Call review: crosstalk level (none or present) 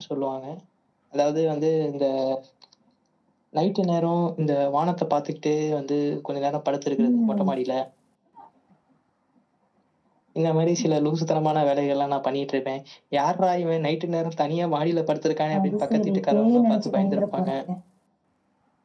present